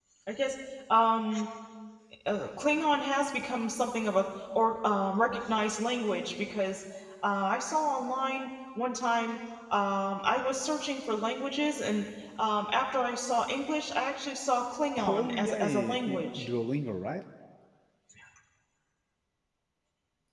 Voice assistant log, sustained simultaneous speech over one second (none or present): present